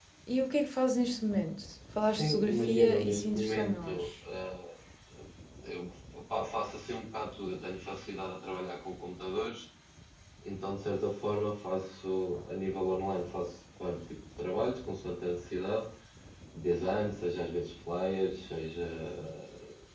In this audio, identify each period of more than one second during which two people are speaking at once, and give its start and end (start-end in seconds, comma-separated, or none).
2.1-4.1